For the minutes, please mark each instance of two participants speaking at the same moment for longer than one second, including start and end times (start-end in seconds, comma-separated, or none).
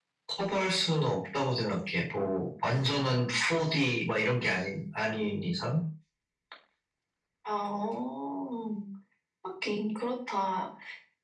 none